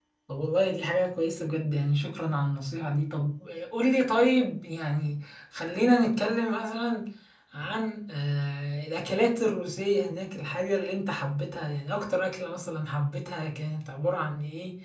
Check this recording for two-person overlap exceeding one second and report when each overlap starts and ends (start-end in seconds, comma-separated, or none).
none